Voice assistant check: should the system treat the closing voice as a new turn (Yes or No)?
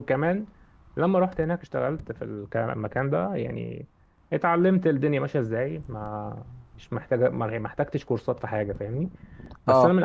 No